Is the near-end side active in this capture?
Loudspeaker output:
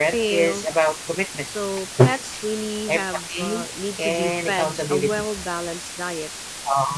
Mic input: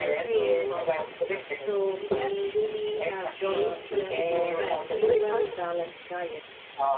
Yes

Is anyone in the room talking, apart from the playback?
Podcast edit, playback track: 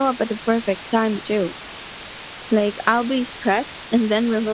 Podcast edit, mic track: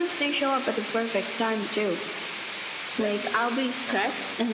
Yes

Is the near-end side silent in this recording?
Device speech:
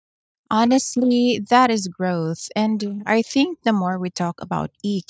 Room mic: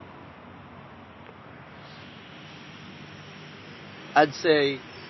No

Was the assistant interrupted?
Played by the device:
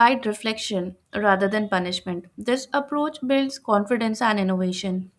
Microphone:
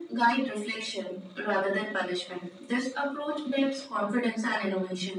No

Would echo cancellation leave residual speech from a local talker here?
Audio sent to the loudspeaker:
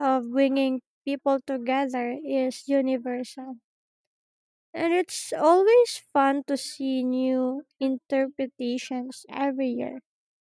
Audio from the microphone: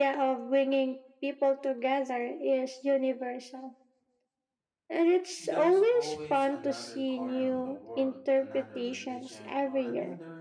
Yes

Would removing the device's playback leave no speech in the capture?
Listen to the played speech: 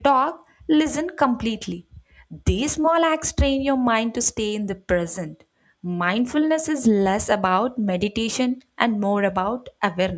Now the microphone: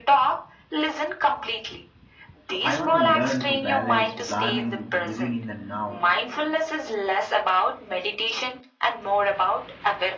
No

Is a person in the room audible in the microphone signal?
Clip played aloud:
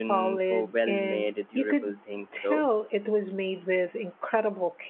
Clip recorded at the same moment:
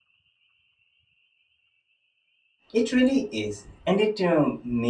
Yes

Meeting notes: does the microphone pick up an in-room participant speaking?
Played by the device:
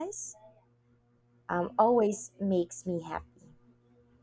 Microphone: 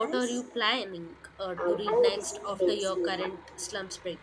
Yes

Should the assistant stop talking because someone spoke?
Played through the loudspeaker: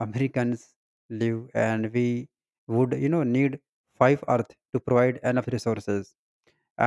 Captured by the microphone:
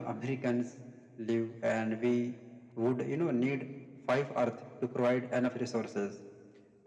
No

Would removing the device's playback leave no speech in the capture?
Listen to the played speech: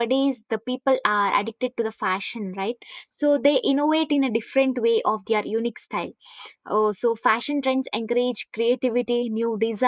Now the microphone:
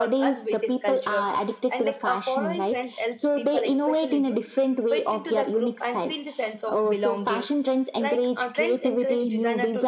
No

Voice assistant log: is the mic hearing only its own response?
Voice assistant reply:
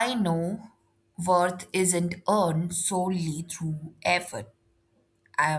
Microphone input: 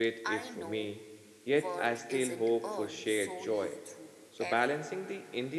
No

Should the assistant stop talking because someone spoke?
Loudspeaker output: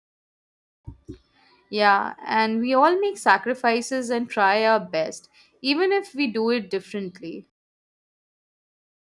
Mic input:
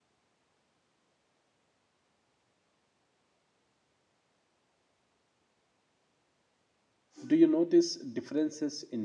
Yes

